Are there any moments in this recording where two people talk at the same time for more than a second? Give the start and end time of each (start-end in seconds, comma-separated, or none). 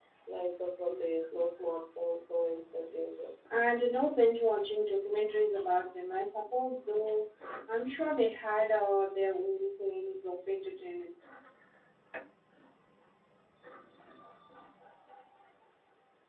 none